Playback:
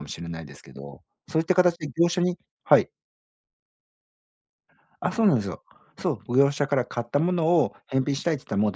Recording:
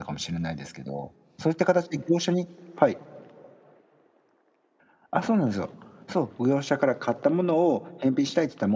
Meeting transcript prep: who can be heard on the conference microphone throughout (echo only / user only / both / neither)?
echo only